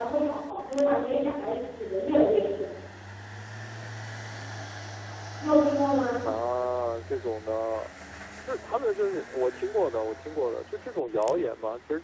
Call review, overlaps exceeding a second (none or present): none